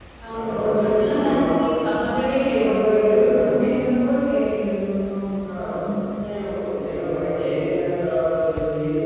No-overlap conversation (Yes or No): No